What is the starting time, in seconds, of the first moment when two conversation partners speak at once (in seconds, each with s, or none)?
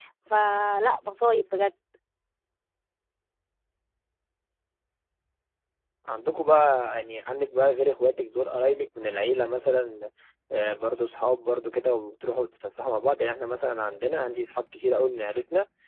none